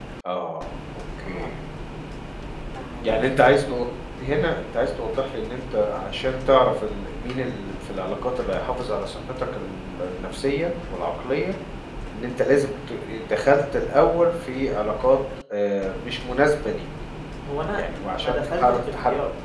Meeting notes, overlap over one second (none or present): present